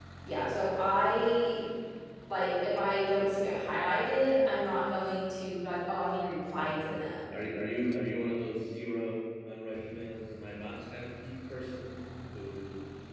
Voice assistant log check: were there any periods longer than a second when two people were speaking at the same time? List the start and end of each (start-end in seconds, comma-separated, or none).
none